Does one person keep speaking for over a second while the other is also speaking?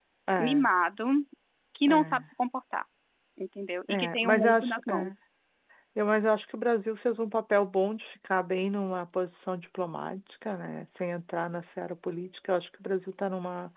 Yes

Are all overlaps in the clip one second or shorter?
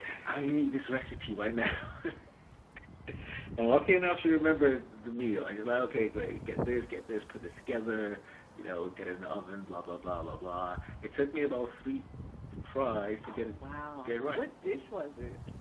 Yes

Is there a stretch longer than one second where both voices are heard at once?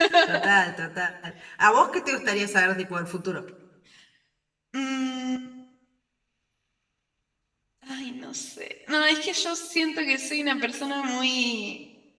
No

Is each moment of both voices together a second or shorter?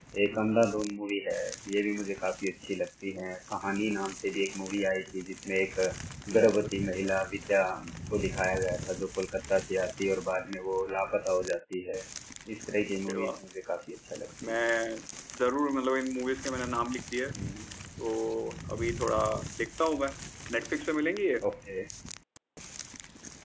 Yes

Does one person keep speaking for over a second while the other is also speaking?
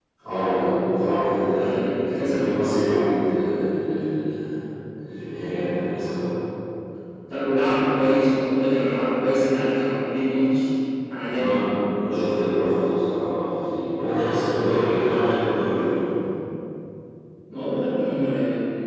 Yes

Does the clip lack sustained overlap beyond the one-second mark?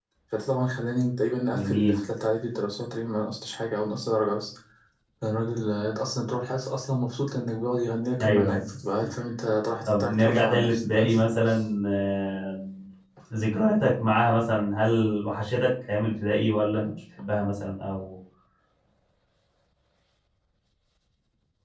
No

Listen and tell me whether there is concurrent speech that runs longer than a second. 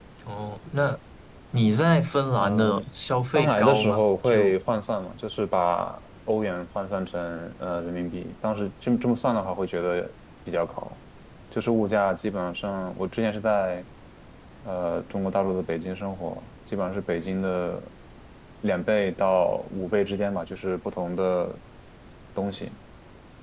Yes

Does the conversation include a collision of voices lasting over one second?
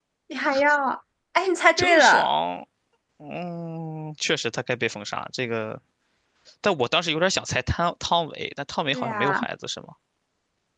No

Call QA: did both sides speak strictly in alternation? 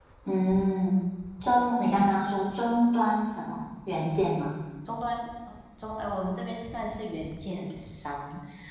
Yes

